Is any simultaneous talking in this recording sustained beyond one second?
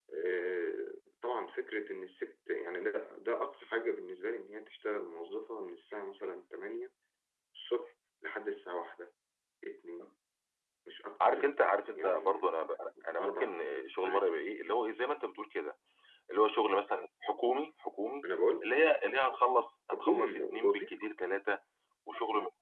Yes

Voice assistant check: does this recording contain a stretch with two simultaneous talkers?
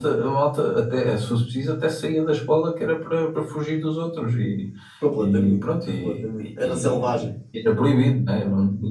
Yes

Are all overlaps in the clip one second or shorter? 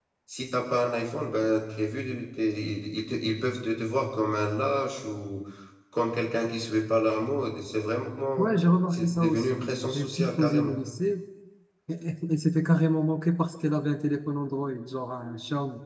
No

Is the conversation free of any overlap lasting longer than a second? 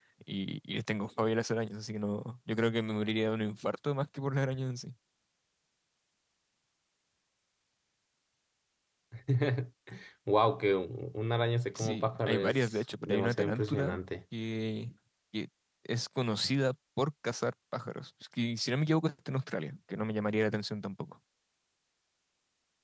No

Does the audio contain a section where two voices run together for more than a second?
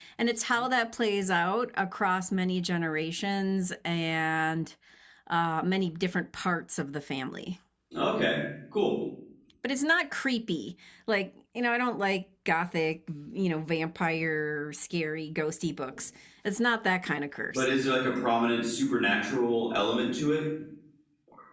No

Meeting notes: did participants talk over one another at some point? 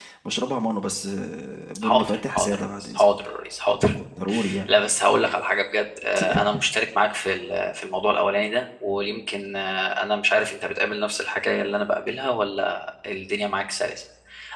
Yes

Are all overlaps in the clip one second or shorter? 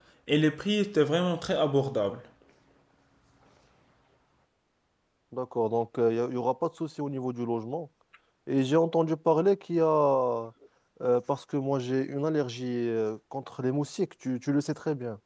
Yes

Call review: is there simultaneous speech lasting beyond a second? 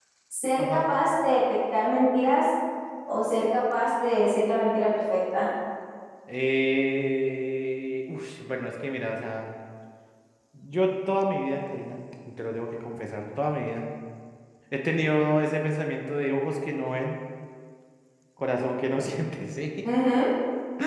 No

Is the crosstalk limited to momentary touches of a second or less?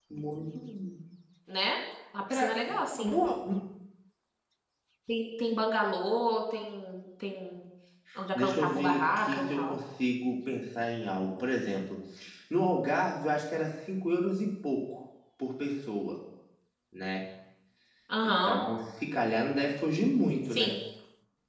No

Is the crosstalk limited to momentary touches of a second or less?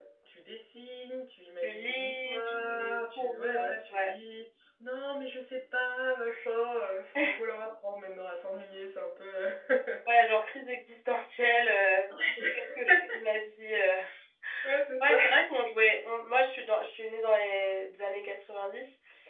No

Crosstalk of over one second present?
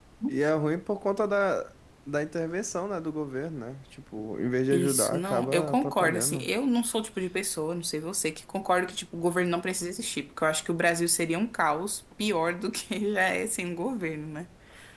Yes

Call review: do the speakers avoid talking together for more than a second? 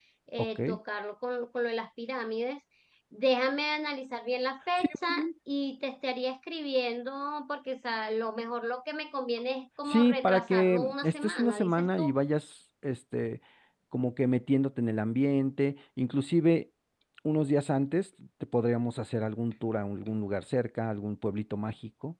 No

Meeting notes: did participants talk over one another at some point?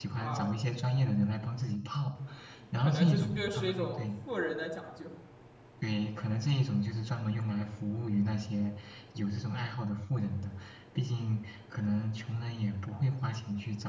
Yes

